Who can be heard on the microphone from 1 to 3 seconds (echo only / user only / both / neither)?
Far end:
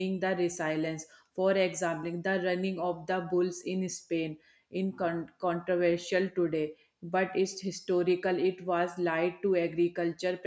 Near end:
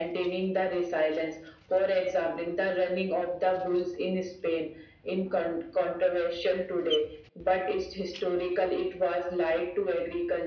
echo only